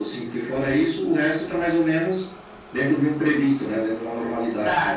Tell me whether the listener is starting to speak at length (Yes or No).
Yes